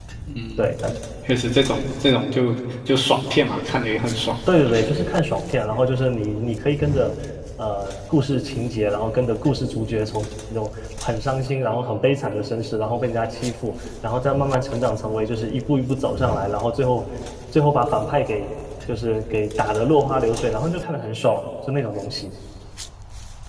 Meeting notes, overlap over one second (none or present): none